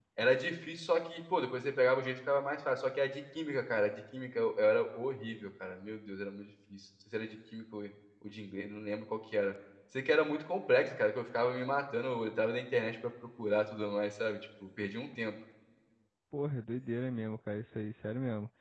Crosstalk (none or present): none